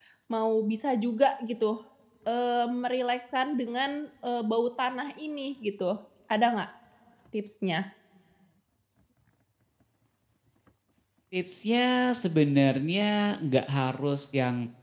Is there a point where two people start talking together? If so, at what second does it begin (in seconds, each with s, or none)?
none